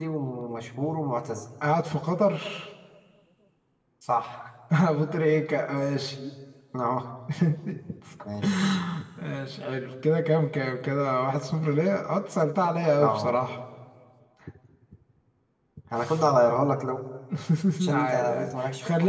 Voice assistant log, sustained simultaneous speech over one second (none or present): present